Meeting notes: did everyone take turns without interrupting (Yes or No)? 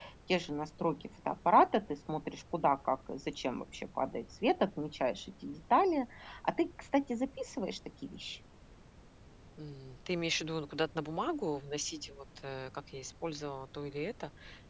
Yes